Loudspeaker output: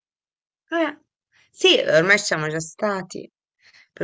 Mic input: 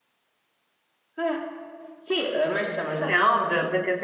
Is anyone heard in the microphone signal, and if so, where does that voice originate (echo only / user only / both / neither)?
both